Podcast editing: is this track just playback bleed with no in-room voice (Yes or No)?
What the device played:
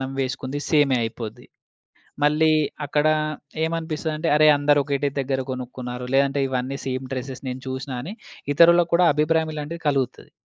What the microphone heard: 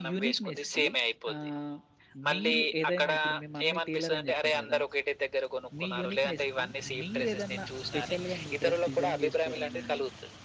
No